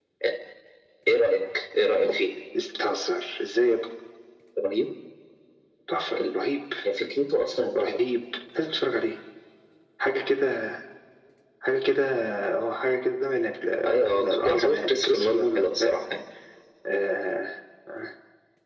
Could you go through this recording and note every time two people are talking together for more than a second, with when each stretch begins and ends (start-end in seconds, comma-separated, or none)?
14.1-16.0